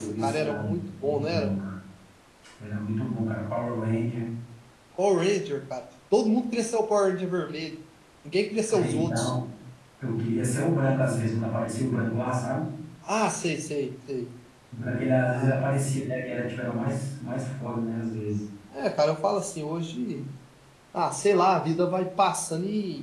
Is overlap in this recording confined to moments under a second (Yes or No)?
No